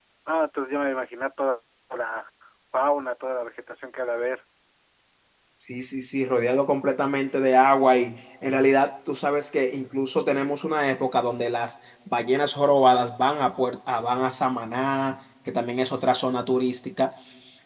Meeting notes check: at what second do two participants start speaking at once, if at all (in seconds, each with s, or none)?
none